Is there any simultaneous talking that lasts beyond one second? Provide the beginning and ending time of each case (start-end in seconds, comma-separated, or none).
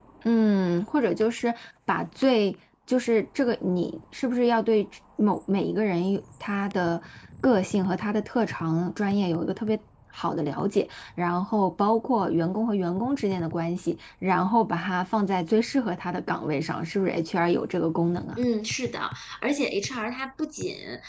none